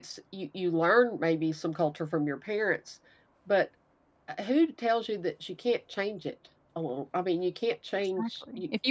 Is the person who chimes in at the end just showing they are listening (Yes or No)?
No